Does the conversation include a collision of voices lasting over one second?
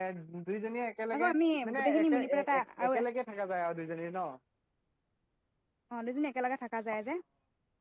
Yes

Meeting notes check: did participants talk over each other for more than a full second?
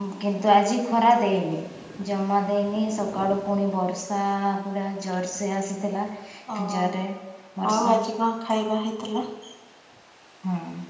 No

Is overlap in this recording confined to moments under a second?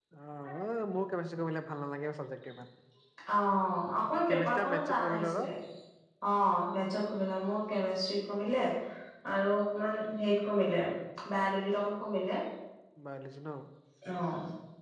No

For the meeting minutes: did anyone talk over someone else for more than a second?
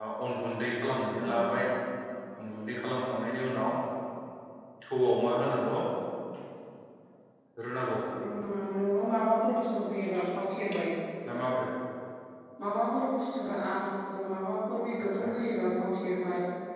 No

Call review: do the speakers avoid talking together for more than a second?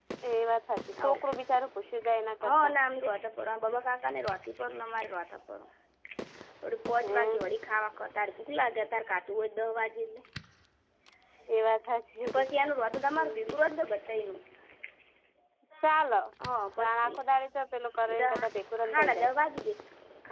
Yes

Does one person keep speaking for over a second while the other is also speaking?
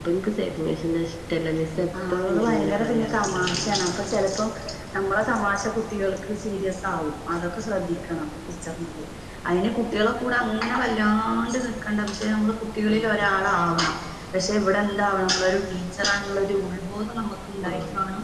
Yes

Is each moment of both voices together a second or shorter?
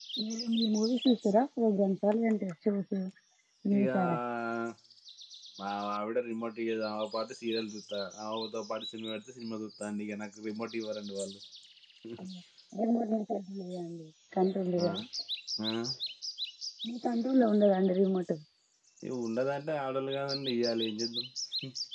Yes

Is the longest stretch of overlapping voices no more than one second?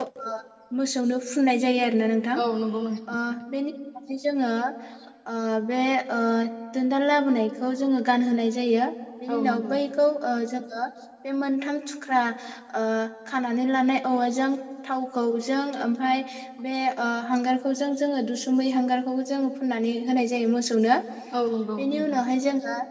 Yes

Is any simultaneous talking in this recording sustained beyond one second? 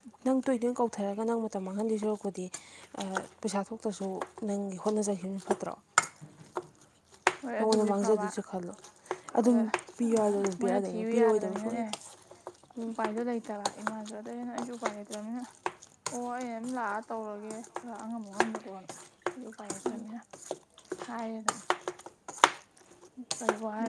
Yes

